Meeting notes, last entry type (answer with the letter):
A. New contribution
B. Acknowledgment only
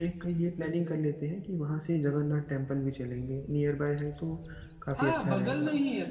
A